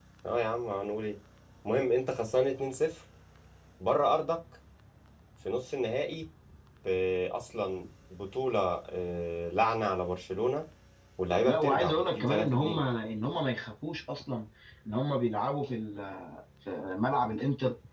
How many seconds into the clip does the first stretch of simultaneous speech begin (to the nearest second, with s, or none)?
11 s